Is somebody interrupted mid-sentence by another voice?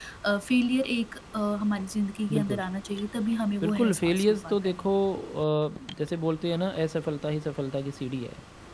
Yes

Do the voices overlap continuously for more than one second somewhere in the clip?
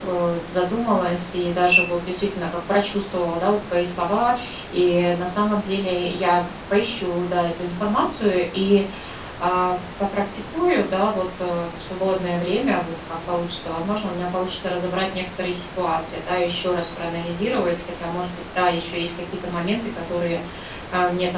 No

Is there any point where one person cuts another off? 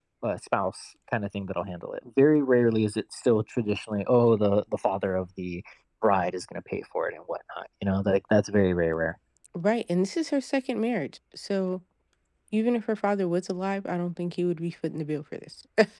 No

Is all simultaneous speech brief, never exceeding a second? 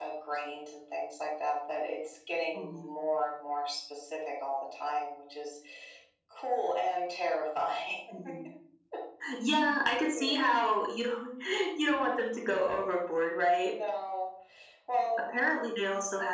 Yes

